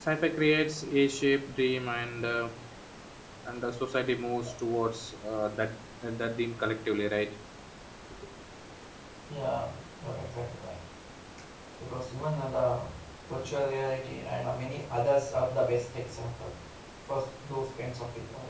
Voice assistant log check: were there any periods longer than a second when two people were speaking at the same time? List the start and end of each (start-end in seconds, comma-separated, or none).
none